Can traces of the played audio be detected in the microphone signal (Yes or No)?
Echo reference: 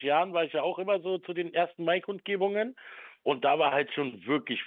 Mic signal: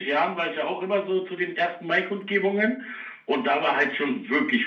Yes